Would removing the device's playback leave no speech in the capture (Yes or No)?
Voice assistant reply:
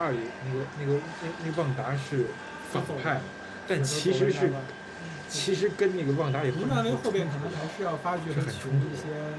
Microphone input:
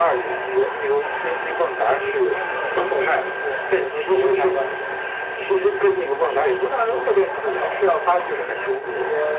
No